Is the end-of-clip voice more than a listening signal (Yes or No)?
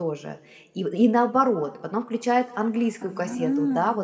No